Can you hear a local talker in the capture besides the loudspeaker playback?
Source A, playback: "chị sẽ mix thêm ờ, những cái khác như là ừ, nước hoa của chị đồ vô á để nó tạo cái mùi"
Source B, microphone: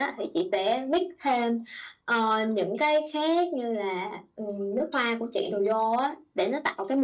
No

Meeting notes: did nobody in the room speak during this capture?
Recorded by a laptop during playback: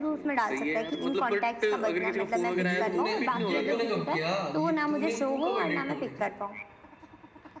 No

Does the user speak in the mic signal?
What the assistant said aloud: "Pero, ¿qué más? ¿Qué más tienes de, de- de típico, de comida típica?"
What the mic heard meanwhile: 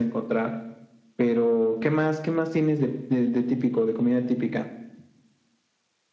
No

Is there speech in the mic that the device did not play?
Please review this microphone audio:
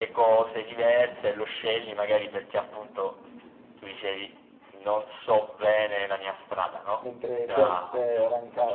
Yes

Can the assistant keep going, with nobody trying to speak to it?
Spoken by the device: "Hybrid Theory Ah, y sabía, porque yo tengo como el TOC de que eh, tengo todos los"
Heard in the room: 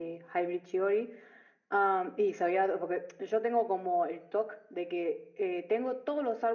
Yes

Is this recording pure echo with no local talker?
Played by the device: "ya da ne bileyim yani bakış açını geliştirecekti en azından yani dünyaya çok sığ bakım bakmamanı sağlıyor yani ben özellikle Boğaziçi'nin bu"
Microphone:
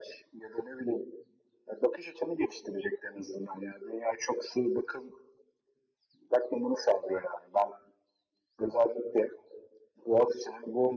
Yes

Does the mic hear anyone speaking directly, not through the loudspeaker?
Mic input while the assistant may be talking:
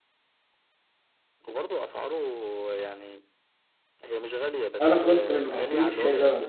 Yes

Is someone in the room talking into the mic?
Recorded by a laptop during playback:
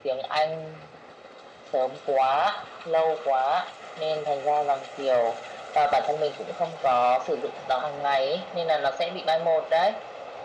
No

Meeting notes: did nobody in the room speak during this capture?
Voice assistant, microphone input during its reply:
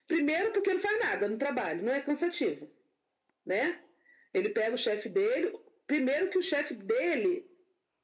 Yes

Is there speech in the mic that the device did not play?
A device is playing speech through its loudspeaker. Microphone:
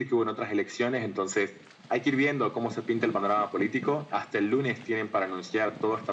No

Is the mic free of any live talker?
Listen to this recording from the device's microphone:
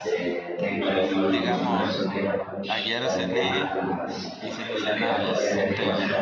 No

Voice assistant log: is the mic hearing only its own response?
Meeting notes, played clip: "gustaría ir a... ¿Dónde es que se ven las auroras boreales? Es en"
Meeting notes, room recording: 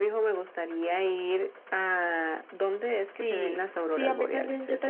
No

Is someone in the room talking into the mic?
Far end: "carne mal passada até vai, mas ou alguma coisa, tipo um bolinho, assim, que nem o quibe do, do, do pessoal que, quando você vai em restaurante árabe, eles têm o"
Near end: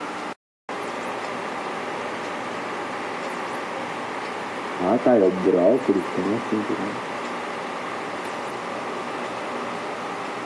Yes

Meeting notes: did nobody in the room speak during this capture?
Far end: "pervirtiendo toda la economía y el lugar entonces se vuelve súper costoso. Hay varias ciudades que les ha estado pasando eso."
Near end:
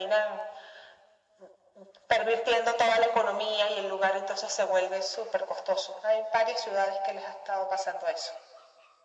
Yes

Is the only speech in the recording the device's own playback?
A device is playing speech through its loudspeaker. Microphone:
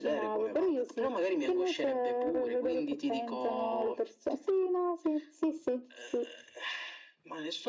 Yes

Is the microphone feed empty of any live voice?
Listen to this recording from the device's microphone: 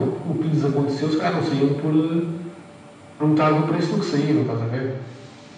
Yes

